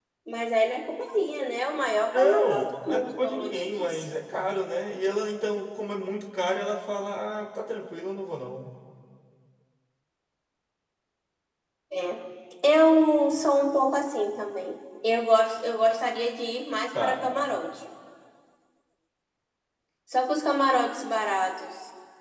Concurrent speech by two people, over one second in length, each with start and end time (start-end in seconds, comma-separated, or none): 2.1-4.0